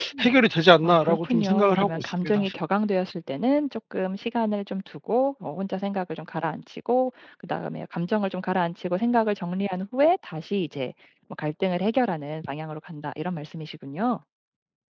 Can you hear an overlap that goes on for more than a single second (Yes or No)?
Yes